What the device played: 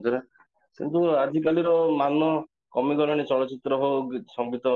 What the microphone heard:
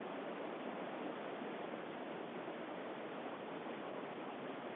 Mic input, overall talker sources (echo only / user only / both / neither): neither